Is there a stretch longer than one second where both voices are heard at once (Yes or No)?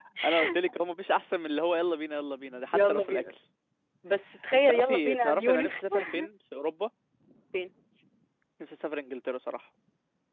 Yes